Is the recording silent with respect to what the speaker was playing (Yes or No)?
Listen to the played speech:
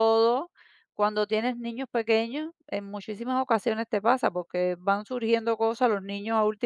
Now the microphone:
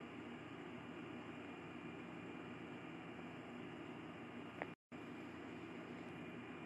Yes